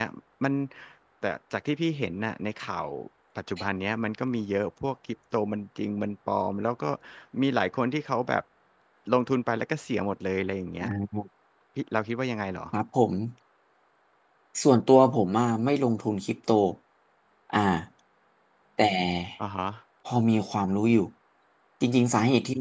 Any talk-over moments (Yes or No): No